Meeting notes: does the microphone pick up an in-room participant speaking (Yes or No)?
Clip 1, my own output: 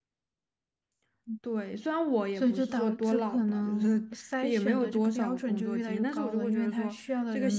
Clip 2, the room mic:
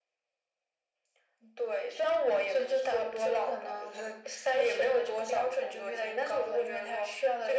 No